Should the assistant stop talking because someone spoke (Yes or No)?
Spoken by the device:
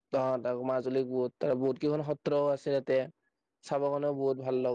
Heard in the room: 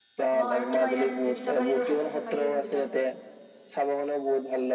Yes